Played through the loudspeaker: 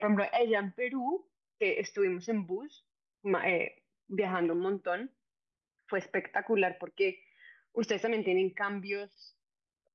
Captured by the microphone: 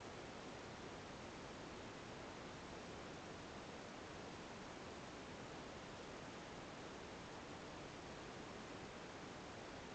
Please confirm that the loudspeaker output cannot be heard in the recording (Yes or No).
Yes